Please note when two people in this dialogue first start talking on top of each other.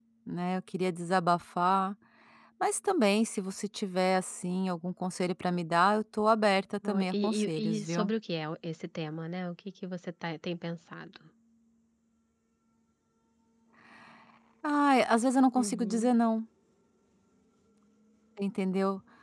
6.8 s

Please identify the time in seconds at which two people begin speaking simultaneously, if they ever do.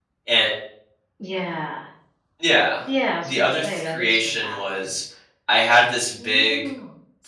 3.2 s

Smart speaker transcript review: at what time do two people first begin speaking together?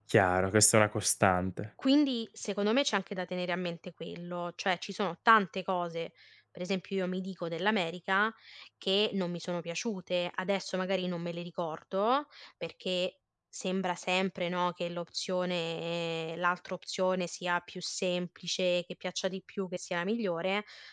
none

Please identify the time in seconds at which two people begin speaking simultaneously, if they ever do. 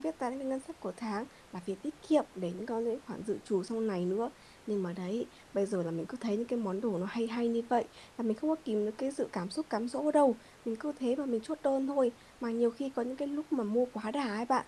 none

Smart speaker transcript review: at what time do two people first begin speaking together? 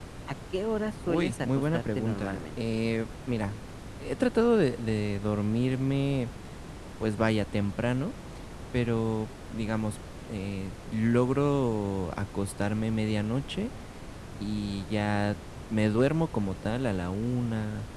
1.1 s

